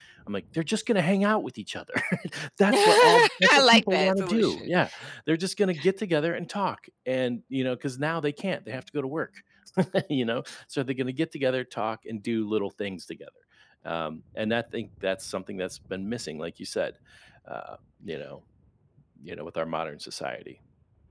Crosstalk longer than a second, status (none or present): present